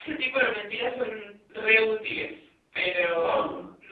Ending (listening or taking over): listening